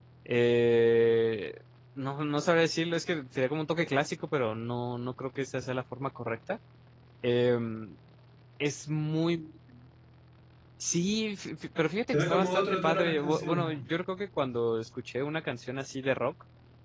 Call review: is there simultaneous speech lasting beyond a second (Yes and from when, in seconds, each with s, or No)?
Yes, from 12.1 s